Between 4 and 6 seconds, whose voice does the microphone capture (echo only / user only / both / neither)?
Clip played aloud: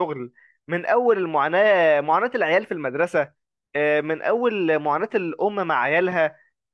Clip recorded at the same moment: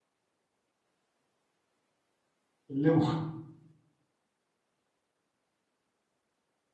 neither